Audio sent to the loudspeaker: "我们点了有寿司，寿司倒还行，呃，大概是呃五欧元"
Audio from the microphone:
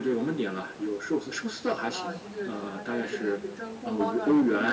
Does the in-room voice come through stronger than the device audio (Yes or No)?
No